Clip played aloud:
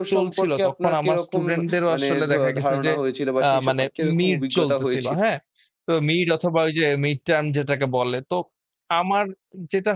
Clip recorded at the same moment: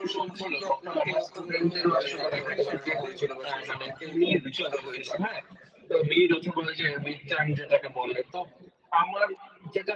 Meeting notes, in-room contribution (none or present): present